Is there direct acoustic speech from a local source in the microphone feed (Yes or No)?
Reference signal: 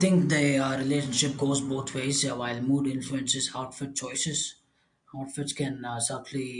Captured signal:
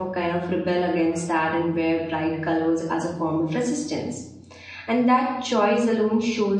Yes